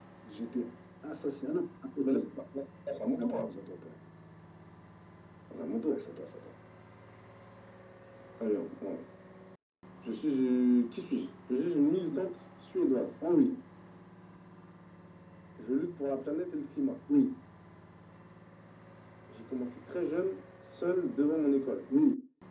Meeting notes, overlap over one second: none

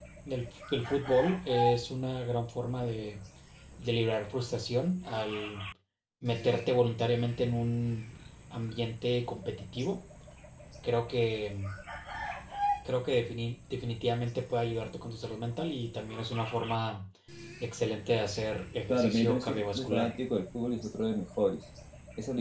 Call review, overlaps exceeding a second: present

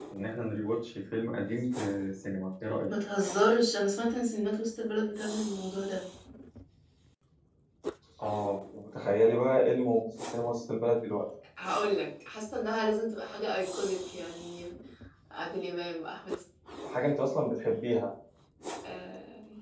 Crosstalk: none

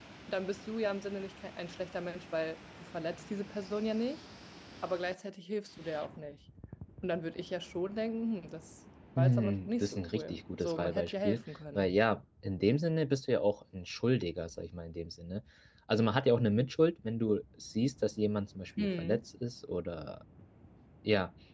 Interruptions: present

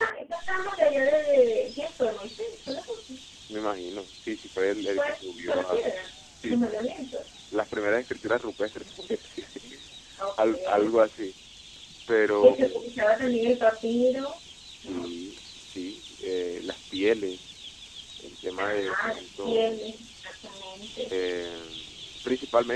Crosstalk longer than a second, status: present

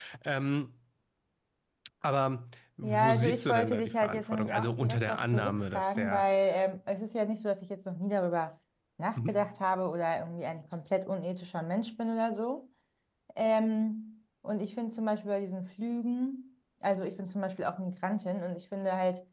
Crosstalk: present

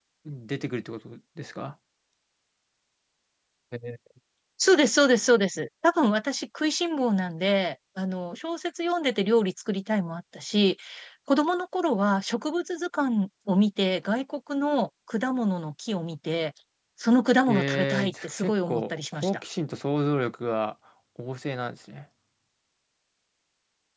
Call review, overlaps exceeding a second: present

